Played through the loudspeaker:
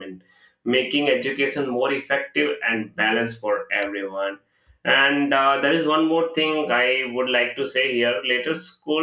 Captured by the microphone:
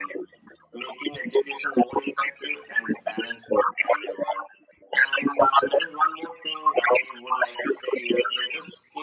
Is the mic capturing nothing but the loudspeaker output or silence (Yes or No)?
Yes